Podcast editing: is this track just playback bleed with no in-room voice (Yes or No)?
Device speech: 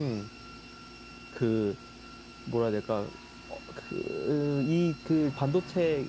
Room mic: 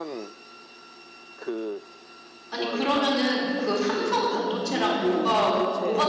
No